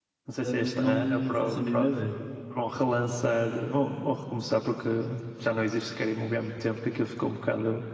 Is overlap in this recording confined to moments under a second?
No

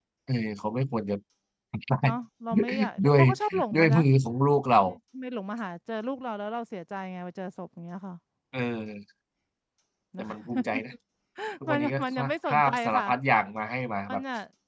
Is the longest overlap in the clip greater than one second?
Yes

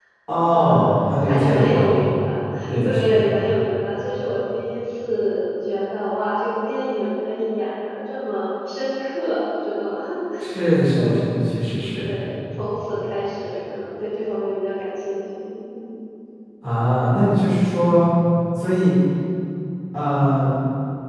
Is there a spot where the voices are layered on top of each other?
Yes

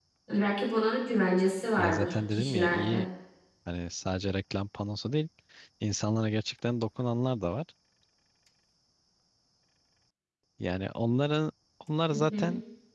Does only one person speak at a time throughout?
No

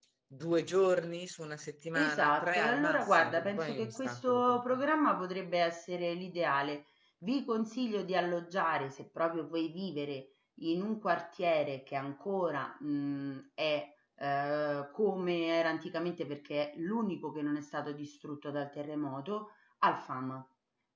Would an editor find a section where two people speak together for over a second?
Yes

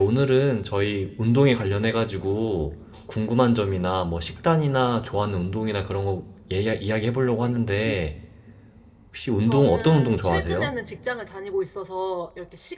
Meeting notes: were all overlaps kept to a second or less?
No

